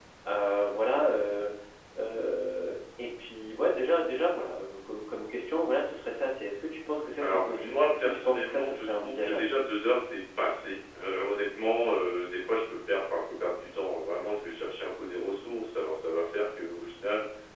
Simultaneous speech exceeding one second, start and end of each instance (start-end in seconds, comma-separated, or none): 7.2-9.5